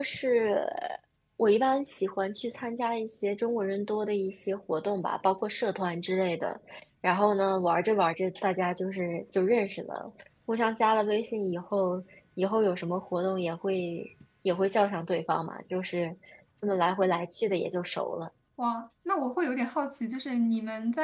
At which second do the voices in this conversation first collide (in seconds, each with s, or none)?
none